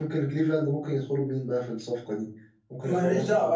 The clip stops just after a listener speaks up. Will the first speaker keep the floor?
No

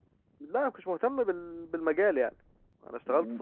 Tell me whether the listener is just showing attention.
No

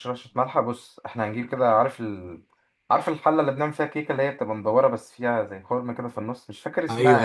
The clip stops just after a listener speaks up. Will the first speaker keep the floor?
No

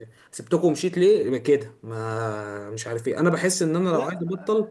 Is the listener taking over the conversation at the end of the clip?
No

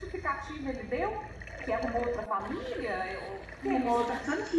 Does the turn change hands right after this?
Yes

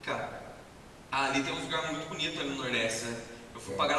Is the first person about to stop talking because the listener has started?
No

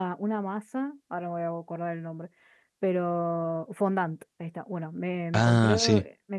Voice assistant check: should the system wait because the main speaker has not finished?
Yes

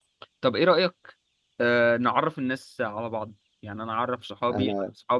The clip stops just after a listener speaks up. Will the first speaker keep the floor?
Yes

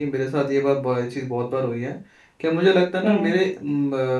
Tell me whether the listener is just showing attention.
Yes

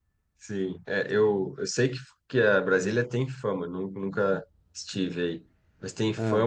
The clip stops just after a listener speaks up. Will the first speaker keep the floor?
Yes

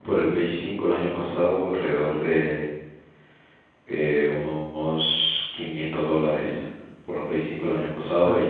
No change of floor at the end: Yes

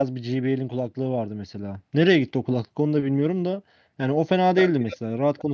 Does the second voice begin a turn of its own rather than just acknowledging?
No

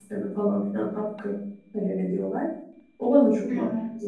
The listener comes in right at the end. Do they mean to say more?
No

